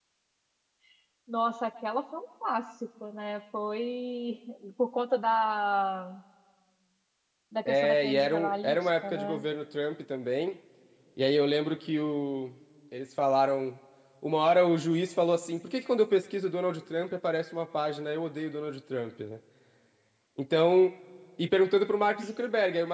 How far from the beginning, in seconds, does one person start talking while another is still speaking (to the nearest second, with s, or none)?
8 s